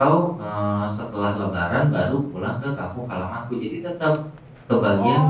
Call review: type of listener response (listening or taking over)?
taking over